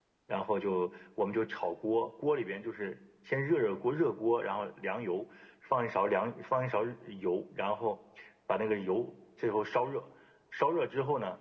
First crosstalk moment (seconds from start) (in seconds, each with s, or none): none